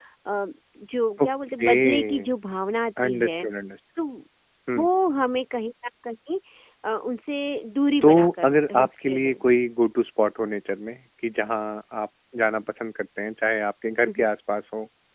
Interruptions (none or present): present